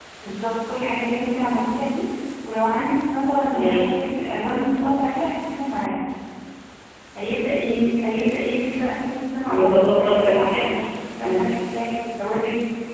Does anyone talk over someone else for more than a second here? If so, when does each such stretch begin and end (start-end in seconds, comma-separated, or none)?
9.5-10.7